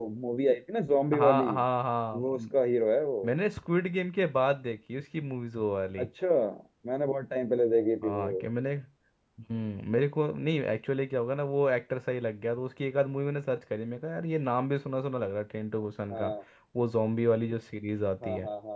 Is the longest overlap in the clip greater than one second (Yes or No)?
No